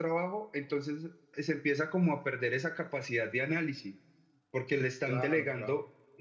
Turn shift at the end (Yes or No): No